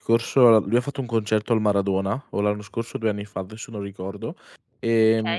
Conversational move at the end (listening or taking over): listening